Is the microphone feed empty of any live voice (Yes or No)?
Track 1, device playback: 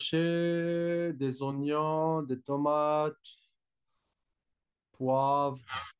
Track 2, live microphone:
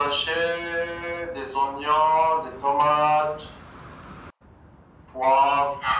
Yes